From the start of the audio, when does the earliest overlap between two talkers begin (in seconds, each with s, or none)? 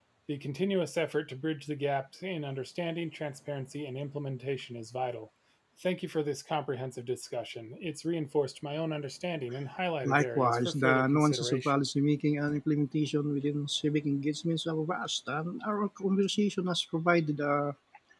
10.1 s